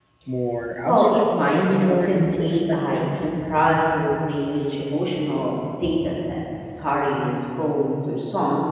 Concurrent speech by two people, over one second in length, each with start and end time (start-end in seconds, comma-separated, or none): 0.9-3.0